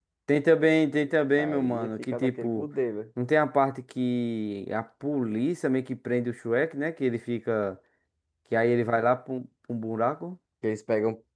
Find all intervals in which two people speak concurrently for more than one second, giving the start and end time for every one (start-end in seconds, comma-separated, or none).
1.4-2.7